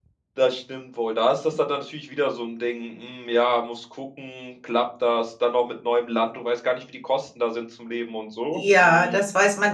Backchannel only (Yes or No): No